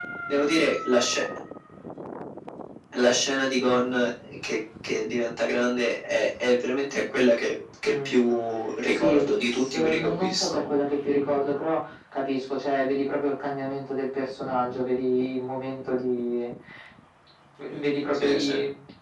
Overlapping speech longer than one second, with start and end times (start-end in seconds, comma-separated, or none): 8.9-10.6